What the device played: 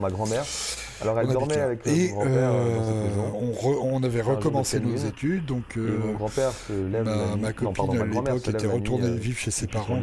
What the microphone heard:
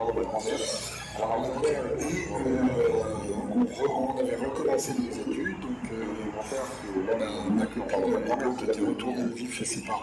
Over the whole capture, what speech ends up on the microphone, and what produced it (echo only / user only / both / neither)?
echo only